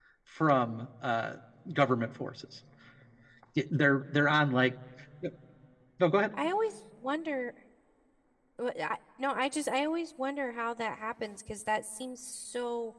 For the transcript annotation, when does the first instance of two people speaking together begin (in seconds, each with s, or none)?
none